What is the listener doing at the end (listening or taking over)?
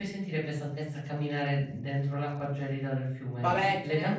taking over